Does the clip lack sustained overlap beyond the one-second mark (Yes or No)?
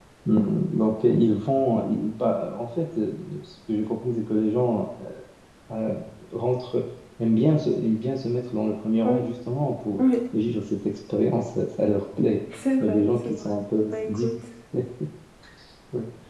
No